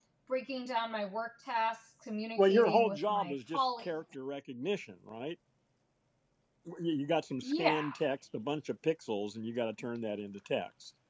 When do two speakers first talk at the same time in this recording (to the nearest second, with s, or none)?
2 s